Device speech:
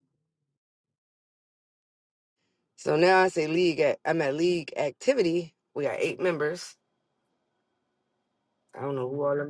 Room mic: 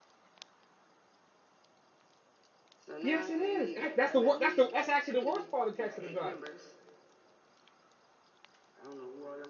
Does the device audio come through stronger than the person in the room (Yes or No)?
No